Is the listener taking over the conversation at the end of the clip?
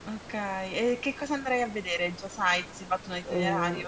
Yes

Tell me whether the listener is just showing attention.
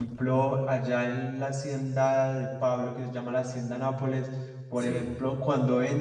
Yes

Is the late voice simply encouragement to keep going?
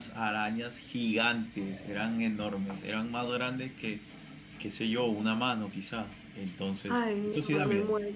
No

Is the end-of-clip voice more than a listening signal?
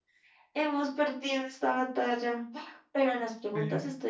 No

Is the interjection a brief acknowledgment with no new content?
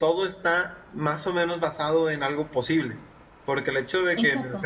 Yes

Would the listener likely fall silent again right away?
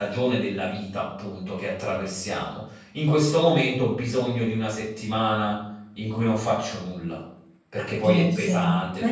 No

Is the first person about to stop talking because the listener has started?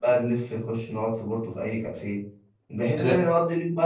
No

